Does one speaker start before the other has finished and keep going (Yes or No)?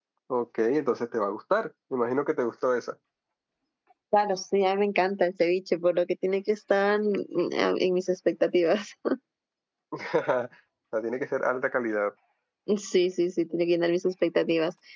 No